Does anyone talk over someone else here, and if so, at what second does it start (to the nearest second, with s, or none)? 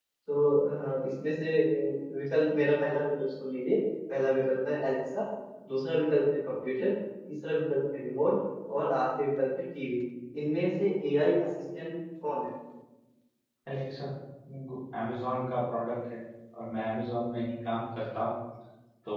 none